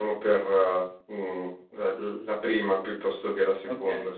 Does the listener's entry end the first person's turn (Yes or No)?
Yes